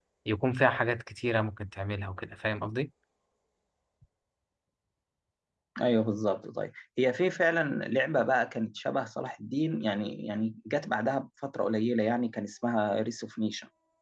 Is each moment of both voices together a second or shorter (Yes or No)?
Yes